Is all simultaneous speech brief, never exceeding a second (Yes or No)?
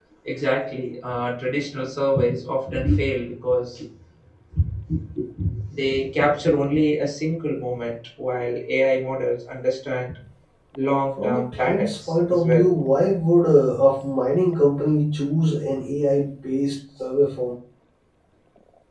No